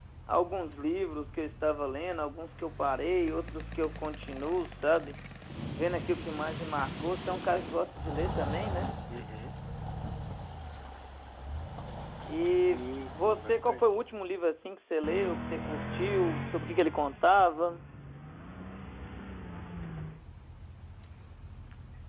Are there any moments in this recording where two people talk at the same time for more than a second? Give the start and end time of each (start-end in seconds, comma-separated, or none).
12.6-13.8